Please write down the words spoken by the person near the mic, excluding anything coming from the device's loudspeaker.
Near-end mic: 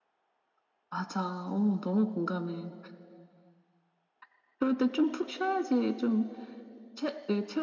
none

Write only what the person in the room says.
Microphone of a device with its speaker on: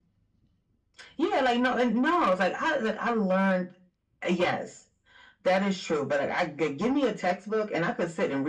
none

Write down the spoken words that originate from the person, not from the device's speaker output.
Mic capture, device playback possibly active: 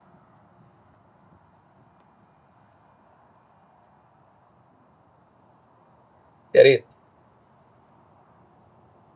يا ريت

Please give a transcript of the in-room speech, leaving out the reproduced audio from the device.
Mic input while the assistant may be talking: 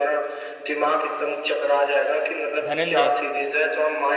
धनंजय

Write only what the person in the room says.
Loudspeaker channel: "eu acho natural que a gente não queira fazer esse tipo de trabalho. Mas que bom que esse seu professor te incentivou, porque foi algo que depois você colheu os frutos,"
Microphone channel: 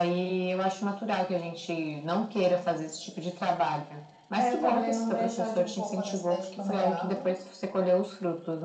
É, eu trabalhei num brechó de roupa da cidade que eu morava.

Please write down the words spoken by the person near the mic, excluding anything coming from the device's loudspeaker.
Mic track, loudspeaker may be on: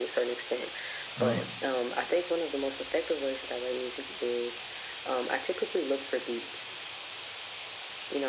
Um,

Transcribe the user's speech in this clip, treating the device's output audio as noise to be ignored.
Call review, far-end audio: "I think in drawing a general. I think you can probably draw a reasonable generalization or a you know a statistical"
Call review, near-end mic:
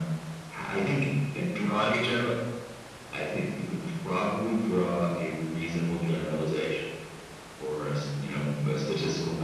none

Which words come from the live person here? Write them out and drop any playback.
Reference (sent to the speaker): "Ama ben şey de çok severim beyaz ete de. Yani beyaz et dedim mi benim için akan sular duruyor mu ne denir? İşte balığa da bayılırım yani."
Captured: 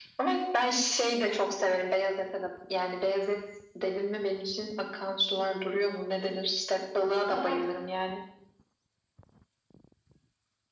Ya ben

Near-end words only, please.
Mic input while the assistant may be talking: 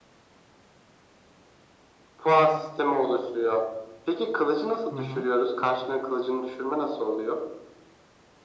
Hı hı.

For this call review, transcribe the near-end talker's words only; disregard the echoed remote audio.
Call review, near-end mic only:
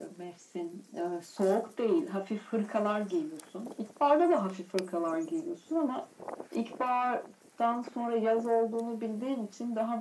none

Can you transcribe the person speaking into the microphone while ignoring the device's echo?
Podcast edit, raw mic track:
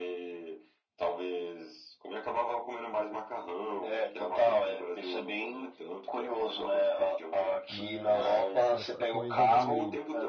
Mas essa coisa de,

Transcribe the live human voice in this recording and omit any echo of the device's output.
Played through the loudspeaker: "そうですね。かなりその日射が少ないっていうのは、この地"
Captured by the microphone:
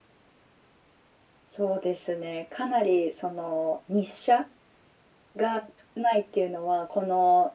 none

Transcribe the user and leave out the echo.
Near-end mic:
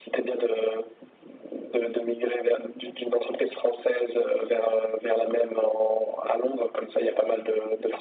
none

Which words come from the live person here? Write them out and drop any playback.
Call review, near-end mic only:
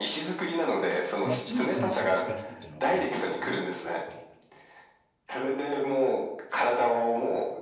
夏に乾燥してるってのがいいかな、やっぱり。

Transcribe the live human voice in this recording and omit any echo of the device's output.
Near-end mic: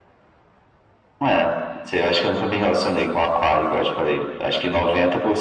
none

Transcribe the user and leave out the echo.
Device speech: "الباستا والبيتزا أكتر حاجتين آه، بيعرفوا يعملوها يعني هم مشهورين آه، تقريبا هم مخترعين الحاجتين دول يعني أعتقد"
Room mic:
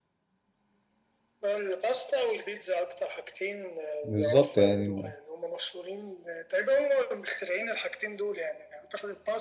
بالظبط يعني

